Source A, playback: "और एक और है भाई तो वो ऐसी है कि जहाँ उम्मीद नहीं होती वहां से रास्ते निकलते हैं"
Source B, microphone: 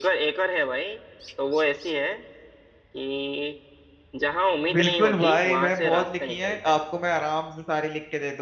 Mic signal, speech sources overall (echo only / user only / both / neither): both